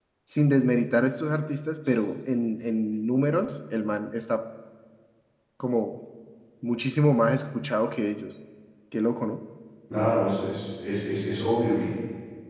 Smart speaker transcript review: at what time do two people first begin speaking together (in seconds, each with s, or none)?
none